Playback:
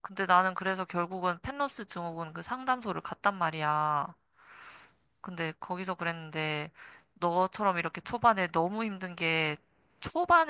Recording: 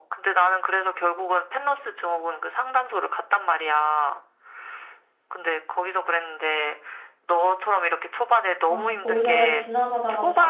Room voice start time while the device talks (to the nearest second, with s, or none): 9 s